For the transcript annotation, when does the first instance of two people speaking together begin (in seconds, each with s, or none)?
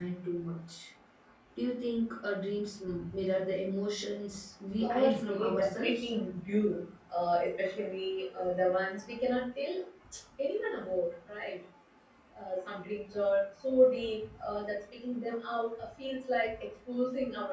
4.8 s